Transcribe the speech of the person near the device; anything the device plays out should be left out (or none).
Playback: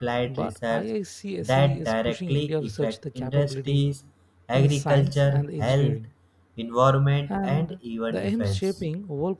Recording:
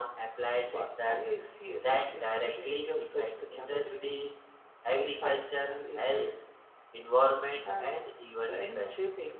none